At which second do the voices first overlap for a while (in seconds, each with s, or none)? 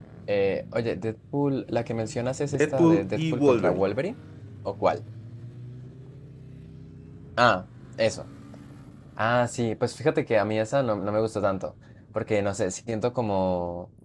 2.5 s